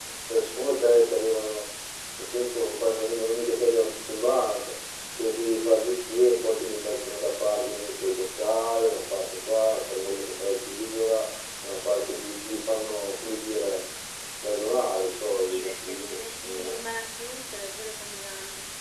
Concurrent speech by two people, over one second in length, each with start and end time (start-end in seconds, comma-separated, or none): 15.2-16.8